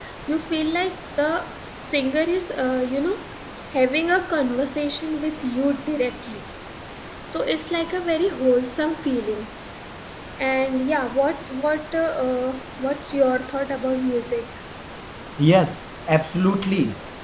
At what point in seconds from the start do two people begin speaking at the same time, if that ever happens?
none

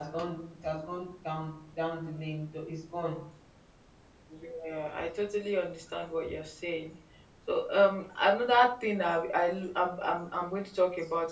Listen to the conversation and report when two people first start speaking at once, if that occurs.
none

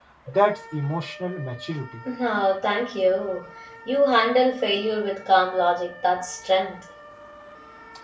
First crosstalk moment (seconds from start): none

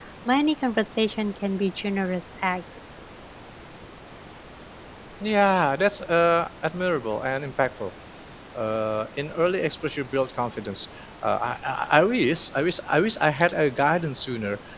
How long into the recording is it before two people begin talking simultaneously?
none

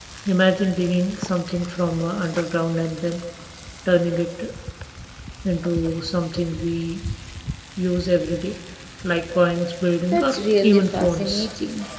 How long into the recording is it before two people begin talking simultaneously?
10.1 s

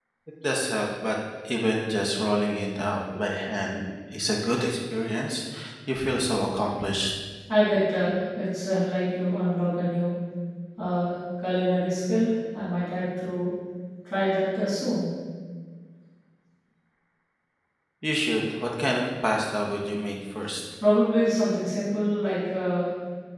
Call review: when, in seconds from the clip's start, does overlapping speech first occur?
none

